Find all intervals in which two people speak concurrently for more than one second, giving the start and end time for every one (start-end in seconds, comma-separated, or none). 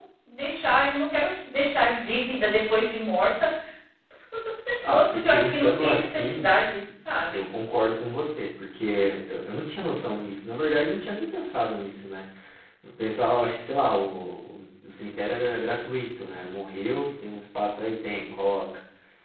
4.8-6.5